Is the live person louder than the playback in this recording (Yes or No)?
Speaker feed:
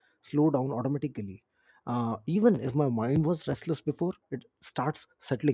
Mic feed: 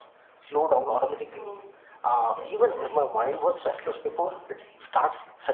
No